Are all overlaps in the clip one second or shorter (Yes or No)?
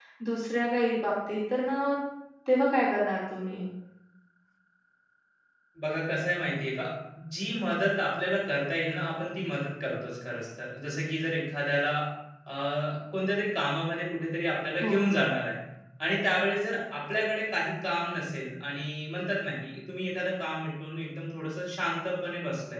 Yes